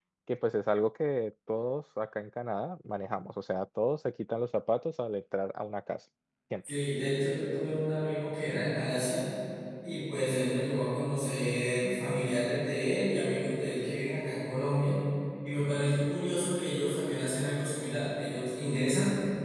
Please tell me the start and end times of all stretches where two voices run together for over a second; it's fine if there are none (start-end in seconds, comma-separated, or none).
none